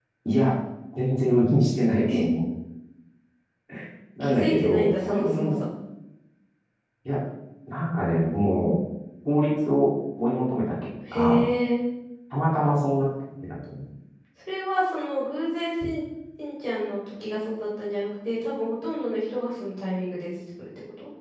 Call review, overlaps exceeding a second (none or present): present